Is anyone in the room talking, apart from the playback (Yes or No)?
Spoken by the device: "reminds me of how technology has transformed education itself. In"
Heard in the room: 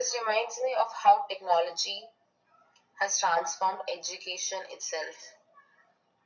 No